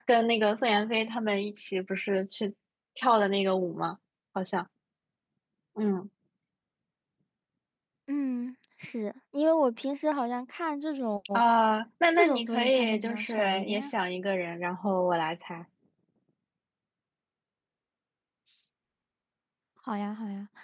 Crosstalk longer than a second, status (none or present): present